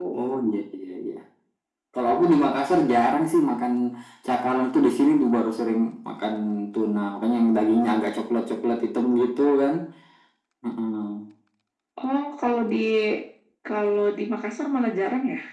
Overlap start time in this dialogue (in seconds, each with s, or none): none